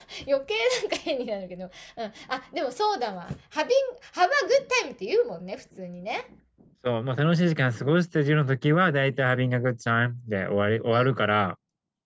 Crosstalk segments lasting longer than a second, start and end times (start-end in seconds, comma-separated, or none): none